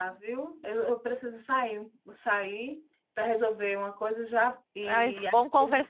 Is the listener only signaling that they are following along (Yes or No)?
No